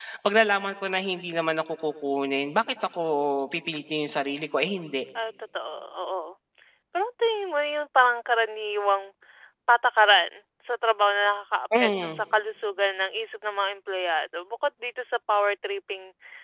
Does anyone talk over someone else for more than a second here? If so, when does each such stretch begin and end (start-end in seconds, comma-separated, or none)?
none